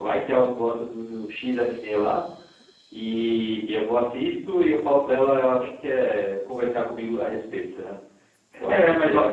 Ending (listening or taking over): taking over